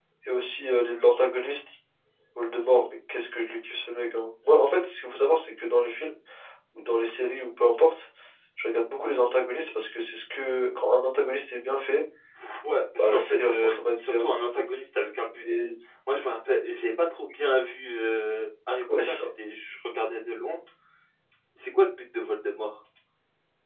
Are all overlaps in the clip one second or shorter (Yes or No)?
No